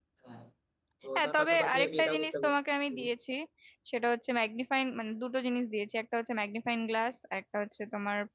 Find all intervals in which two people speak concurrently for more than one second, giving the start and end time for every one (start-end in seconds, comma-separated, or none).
1.2-2.5